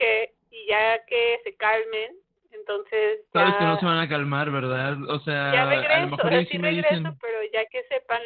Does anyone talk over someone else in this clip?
Yes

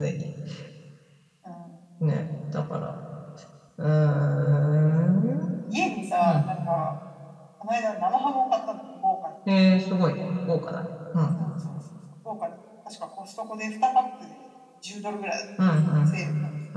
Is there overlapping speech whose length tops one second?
No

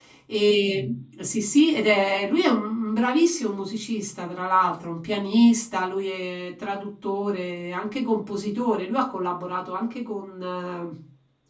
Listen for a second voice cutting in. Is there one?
No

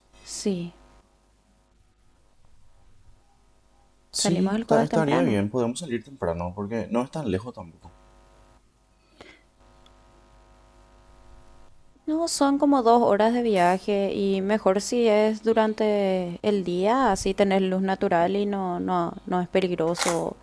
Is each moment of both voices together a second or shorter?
No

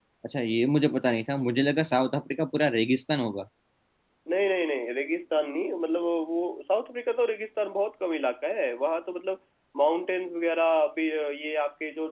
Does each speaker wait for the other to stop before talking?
Yes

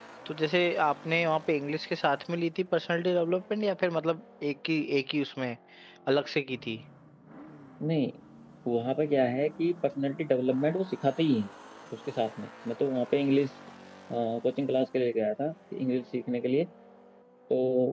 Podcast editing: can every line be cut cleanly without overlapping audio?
Yes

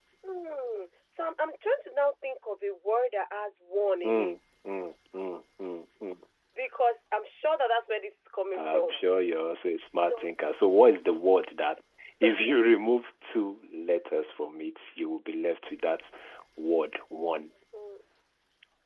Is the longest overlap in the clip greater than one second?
No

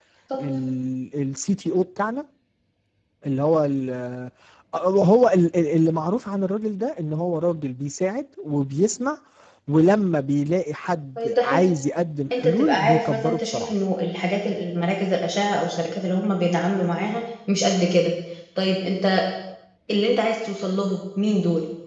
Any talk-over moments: Yes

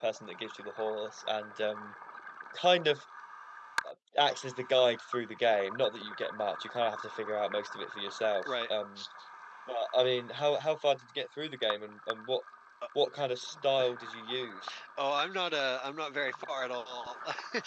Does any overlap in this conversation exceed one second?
No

